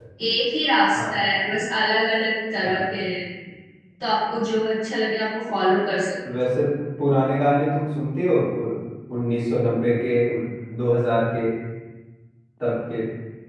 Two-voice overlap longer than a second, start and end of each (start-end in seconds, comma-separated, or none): none